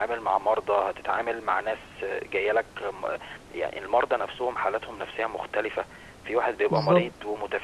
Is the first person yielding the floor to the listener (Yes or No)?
No